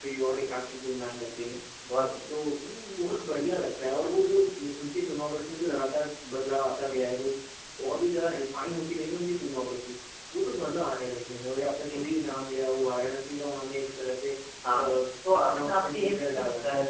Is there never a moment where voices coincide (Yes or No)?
No